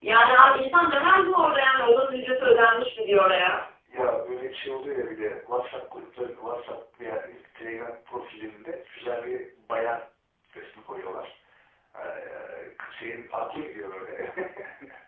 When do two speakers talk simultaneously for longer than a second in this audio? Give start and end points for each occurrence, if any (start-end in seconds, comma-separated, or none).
none